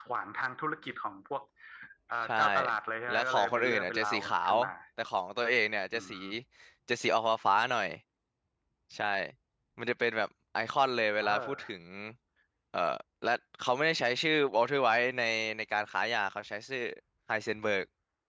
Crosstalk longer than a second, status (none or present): present